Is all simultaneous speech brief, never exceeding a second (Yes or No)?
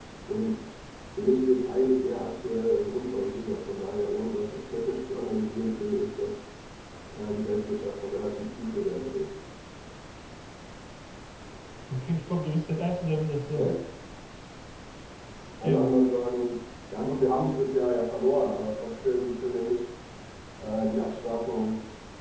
Yes